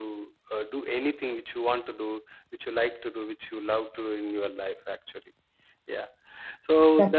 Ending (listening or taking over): listening